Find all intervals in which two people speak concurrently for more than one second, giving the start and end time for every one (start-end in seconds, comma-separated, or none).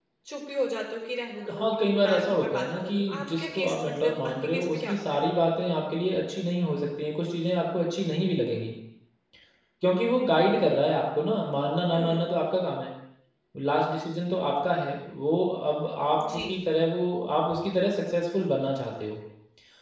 1.5-5.2